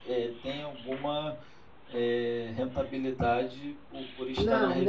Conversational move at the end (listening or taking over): taking over